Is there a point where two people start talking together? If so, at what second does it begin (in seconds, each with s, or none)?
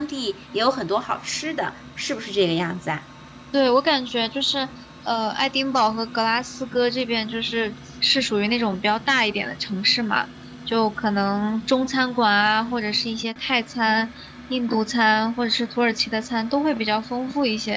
none